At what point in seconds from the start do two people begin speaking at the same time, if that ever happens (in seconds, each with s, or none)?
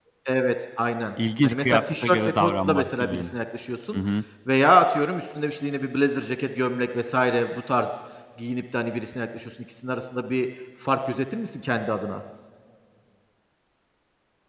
1.4 s